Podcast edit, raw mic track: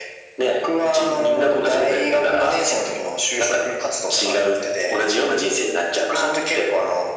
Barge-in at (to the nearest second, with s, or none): none